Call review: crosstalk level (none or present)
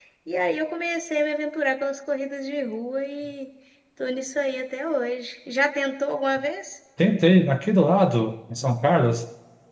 none